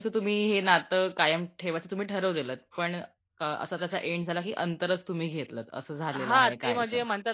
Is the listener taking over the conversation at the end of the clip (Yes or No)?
Yes